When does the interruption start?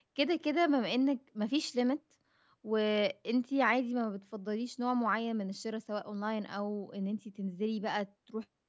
none

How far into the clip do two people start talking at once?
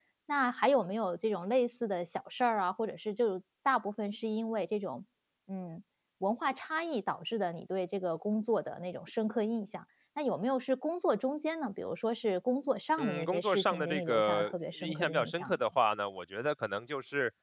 13.0 s

